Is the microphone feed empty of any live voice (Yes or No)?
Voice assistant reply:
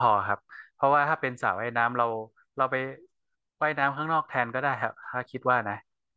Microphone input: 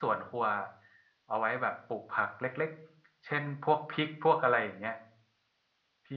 No